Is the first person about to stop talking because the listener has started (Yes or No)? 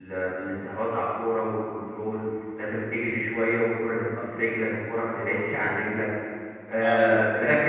No